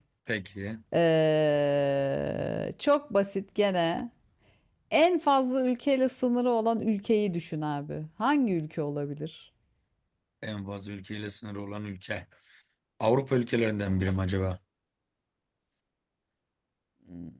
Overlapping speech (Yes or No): No